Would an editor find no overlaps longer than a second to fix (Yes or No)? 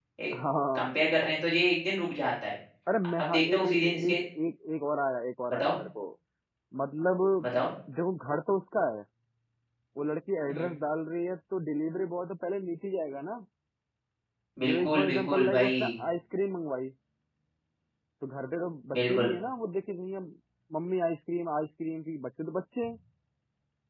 No